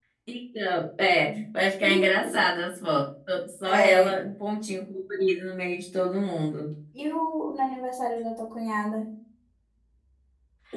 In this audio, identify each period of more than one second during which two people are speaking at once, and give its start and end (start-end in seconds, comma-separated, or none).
none